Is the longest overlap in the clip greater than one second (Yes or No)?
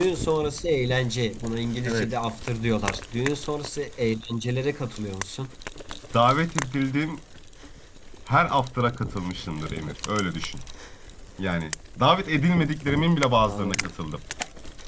No